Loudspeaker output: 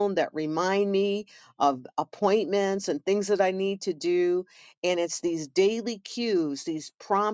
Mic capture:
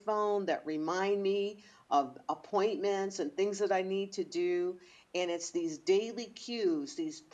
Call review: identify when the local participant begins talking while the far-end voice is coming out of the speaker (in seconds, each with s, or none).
none